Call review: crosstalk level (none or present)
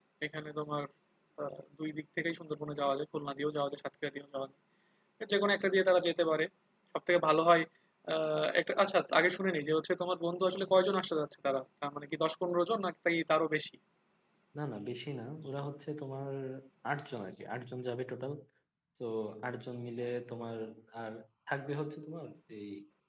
none